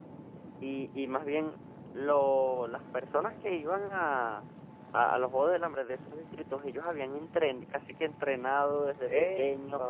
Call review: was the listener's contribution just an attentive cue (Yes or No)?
Yes